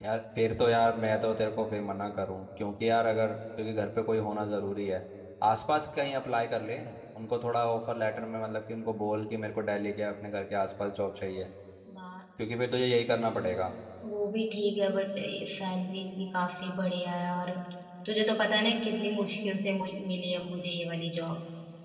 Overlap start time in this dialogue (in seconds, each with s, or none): none